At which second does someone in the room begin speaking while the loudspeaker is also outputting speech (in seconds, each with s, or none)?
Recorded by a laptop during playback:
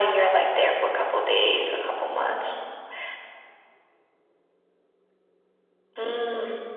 none